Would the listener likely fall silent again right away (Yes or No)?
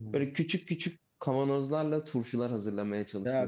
No